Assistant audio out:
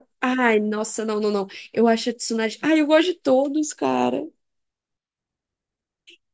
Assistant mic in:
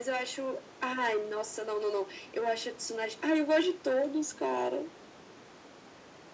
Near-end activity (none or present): none